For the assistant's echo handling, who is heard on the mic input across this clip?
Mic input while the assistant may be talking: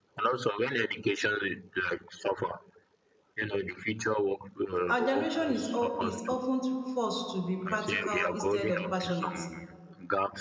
both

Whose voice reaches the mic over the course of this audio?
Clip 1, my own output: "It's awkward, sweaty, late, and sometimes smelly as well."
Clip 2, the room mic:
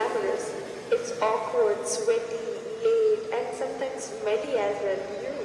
echo only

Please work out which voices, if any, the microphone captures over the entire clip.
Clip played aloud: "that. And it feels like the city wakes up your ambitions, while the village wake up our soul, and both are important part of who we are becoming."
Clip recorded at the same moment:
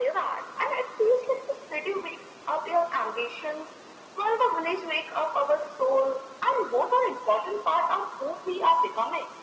echo only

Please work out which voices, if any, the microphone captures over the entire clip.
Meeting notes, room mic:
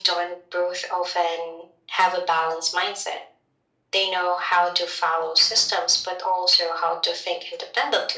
echo only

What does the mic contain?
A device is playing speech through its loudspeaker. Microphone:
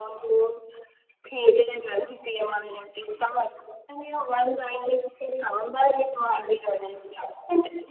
echo only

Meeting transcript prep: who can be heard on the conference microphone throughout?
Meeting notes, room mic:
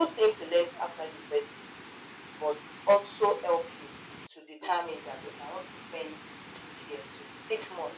echo only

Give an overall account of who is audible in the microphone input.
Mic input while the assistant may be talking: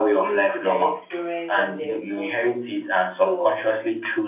both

